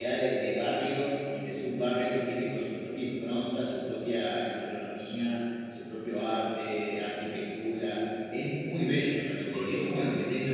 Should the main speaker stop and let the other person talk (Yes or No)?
No